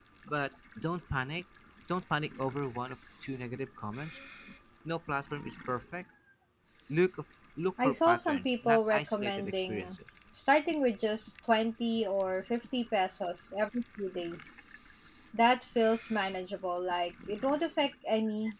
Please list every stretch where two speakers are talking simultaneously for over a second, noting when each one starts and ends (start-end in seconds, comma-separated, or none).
7.8-10.0